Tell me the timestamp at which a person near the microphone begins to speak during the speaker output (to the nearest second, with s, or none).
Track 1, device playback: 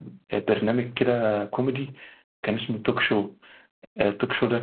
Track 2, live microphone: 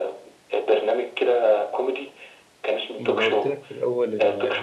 3 s